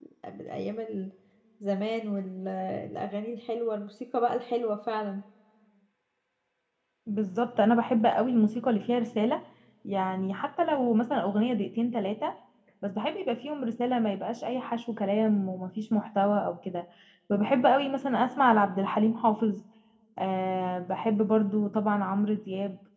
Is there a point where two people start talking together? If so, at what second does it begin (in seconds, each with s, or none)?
none